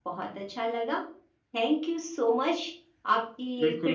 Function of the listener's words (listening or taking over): taking over